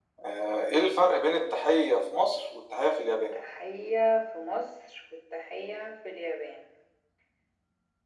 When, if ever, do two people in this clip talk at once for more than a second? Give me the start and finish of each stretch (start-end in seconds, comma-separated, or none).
none